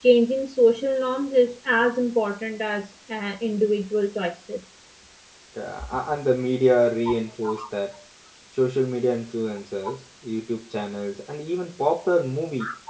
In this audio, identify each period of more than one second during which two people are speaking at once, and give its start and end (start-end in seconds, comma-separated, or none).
none